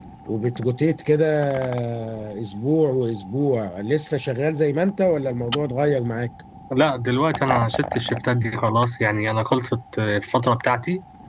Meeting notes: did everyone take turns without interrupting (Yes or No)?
Yes